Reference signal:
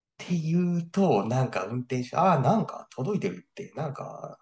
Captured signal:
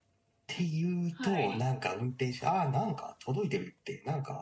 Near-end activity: present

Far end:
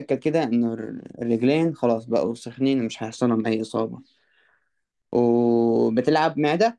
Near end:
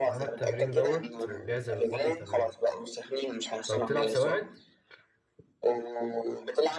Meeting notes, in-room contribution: present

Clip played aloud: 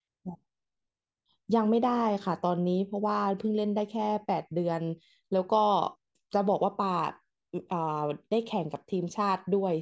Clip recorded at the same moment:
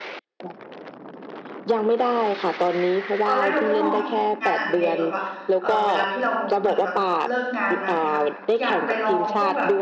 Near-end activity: present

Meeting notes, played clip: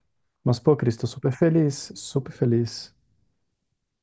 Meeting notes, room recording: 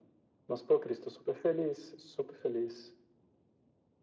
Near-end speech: none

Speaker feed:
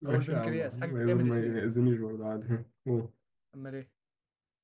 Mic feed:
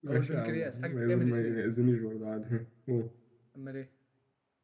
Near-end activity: none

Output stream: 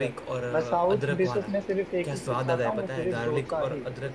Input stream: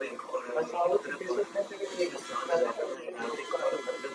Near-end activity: none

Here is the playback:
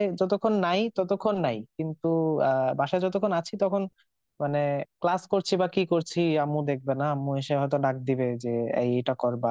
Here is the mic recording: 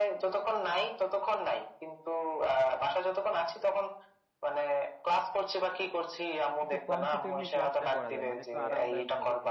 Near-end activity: present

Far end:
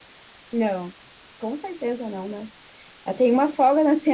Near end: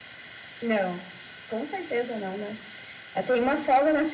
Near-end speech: none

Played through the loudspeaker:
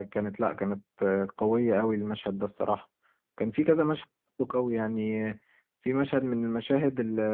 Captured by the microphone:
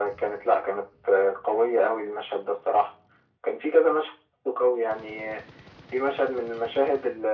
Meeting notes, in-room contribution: none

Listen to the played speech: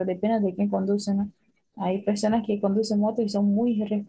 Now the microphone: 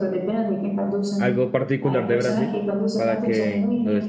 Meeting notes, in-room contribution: present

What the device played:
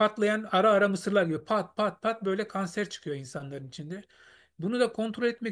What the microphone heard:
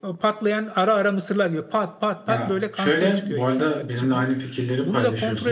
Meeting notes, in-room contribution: present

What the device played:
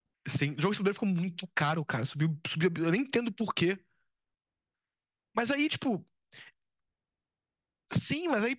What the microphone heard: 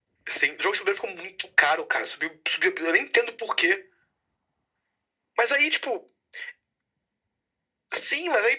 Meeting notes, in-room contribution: none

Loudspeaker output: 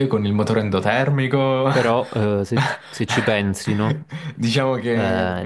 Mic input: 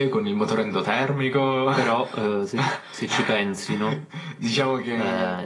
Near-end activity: none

